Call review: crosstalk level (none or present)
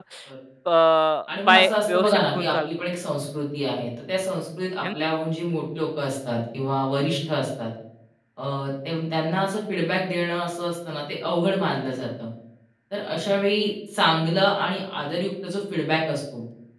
present